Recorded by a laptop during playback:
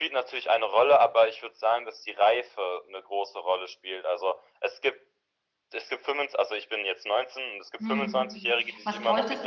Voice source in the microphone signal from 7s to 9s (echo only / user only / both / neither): both